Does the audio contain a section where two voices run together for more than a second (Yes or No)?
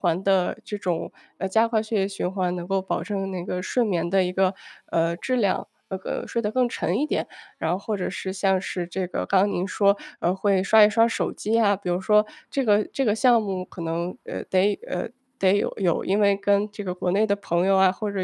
No